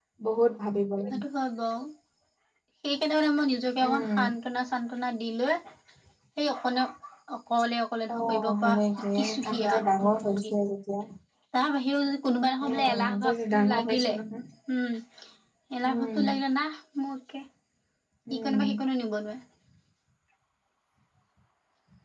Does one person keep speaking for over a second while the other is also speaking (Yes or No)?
Yes